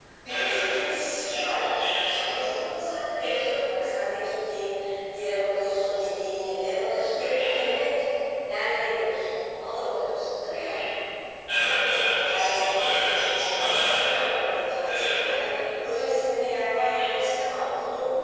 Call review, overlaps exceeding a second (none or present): present